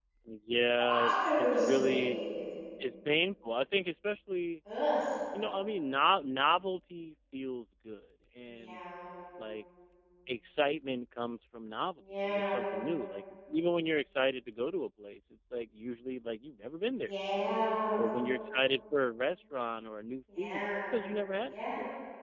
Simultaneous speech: Yes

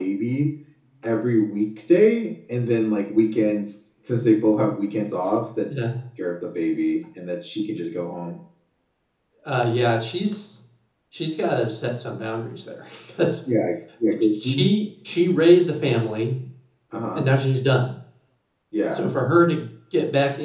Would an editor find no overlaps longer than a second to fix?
Yes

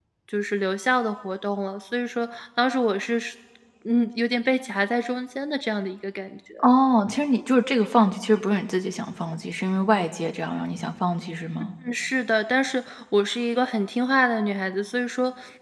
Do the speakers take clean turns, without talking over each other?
Yes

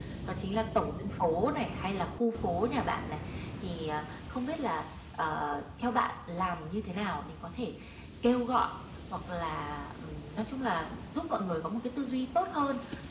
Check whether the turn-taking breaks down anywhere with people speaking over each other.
No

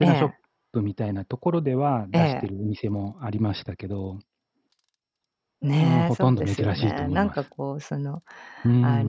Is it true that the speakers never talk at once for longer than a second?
No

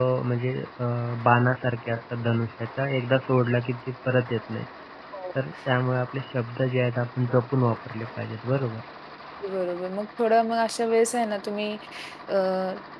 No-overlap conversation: Yes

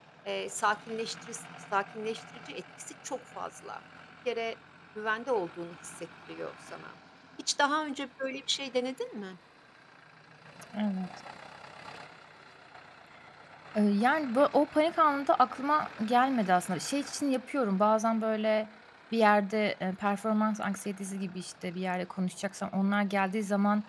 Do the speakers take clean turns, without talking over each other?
Yes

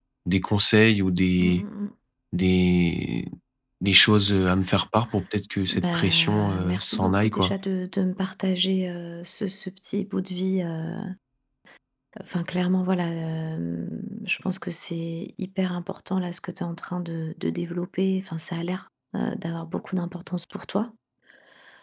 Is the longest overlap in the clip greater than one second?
Yes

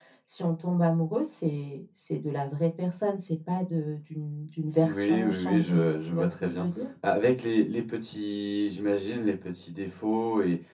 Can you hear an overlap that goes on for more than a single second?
Yes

